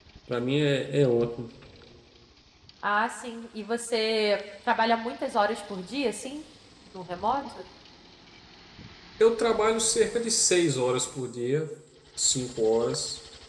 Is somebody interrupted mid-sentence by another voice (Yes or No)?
No